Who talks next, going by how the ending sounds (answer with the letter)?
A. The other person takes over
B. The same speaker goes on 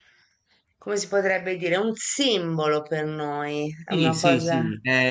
A